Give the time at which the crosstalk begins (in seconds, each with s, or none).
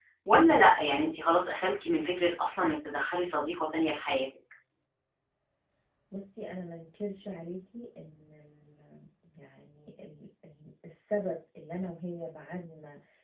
none